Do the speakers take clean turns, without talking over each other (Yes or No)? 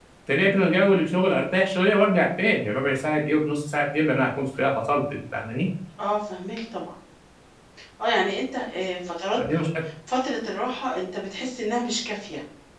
Yes